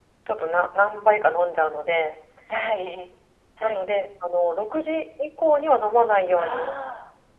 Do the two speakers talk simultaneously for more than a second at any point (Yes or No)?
No